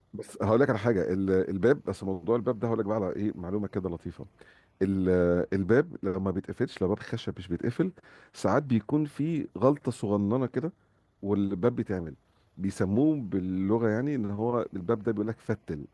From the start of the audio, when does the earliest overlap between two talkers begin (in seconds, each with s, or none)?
none